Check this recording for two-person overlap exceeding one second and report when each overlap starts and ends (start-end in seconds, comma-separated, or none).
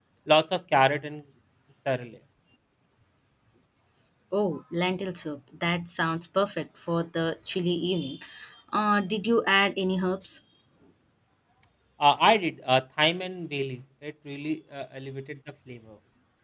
none